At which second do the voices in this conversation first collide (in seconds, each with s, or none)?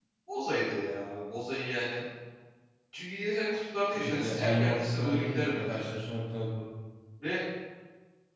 3.9 s